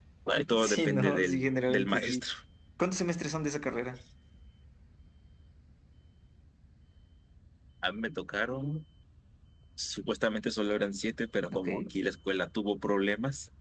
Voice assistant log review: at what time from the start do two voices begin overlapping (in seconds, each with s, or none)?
0.6 s